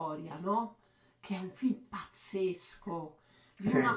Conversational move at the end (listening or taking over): listening